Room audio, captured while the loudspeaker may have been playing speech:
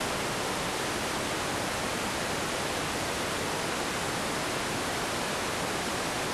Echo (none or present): none